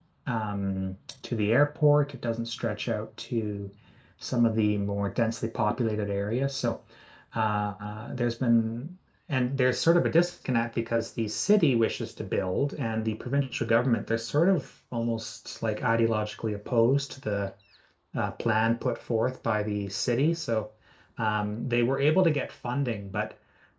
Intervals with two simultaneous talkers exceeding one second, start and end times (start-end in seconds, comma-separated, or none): none